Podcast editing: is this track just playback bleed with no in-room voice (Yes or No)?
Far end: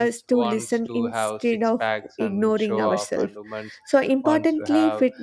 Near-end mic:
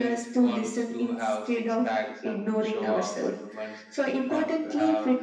Yes